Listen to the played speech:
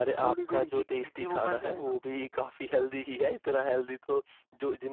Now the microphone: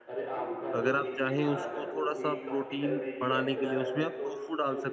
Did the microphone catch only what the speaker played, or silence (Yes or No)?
No